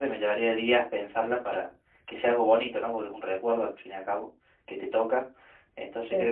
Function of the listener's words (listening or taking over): listening